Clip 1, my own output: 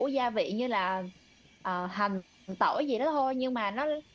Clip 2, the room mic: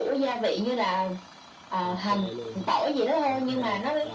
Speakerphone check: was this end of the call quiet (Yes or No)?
No